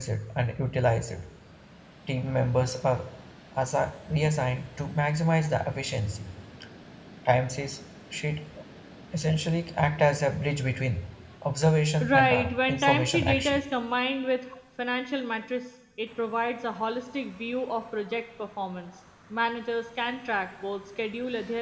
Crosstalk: present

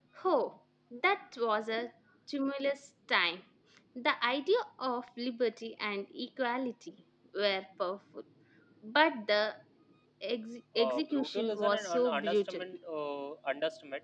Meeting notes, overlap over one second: present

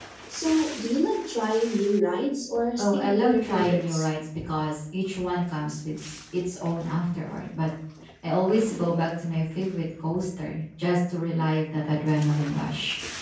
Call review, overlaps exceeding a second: present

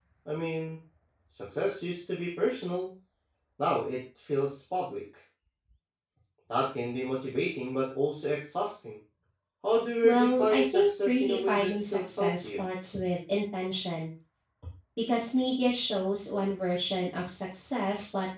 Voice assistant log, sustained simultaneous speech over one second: present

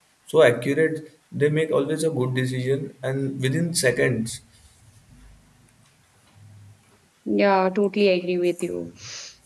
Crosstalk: none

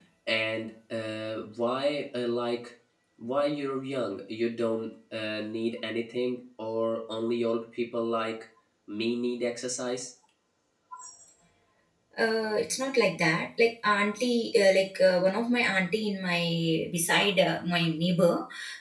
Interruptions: none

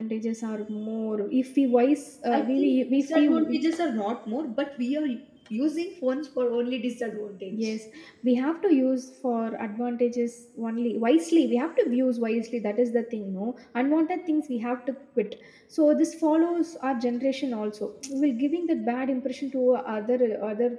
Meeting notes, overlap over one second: present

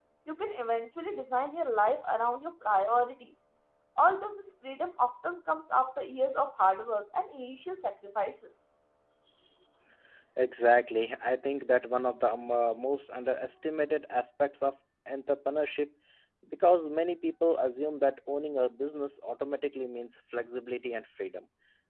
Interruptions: none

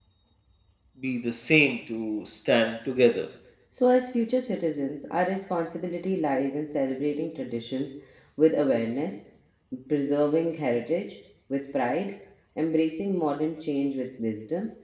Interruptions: none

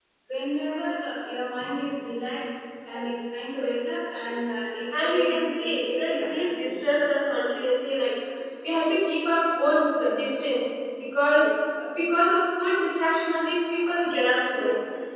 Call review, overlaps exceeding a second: present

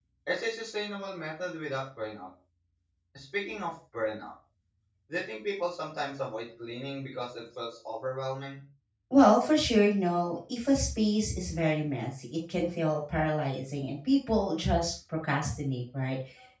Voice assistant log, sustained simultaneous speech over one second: none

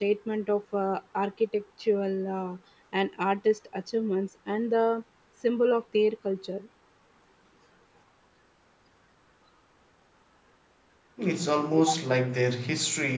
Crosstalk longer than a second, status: none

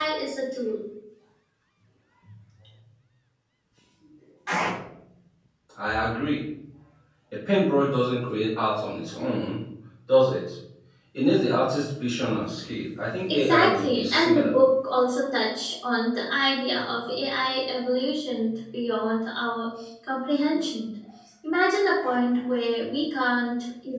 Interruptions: present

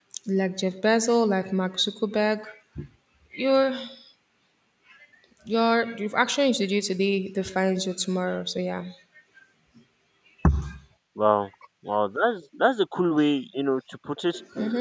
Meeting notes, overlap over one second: none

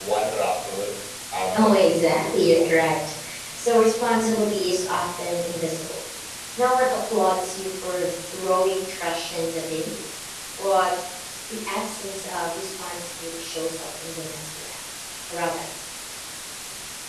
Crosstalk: present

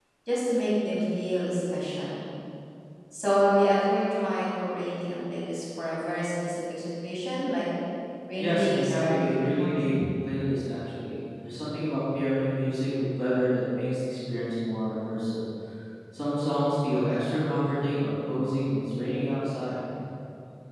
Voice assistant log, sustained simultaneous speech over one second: present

